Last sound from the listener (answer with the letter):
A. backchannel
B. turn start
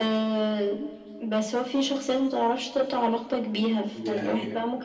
A